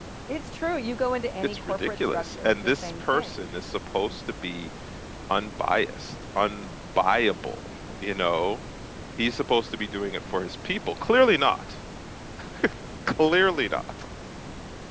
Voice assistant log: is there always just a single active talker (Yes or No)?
No